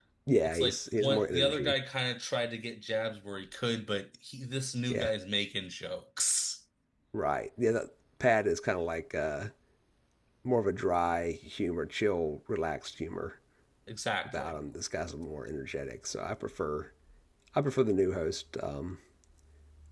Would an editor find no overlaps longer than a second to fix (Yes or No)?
No